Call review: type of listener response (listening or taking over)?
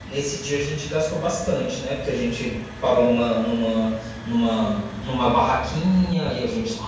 listening